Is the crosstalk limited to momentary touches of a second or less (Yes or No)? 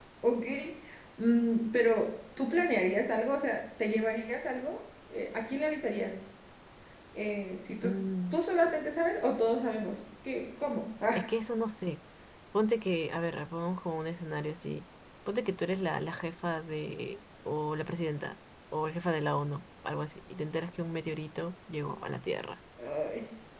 Yes